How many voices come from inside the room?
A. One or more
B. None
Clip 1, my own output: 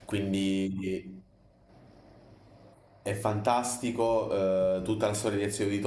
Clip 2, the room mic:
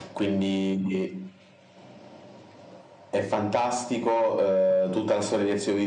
B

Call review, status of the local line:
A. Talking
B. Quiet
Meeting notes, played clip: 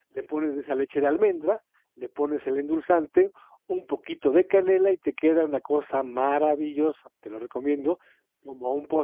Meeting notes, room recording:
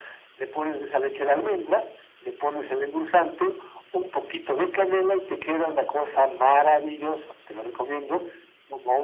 B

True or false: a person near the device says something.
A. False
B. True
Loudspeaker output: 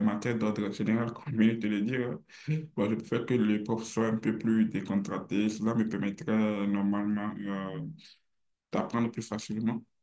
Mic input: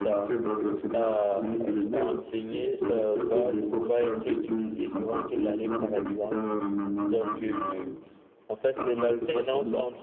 B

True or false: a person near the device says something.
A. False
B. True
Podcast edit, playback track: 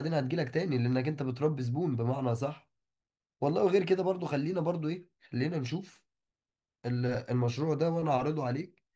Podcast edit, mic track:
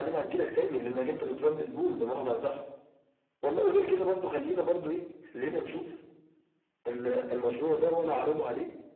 A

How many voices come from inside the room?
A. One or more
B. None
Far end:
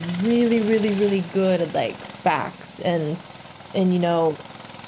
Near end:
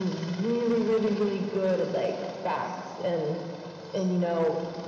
B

